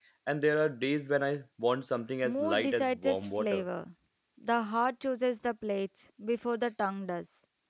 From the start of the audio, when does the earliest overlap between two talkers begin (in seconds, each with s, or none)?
2.2 s